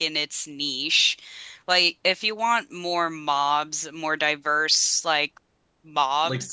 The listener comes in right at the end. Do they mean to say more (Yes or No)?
No